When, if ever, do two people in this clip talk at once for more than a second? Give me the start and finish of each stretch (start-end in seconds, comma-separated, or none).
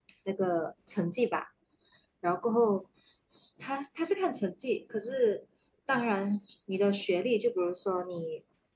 none